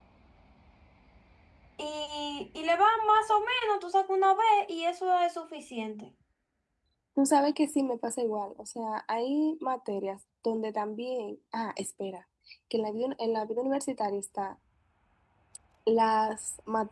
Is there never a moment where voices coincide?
Yes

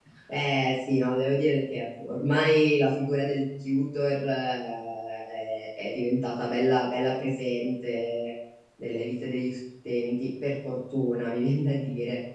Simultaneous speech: No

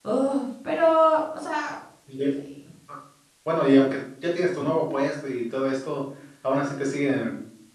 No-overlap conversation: Yes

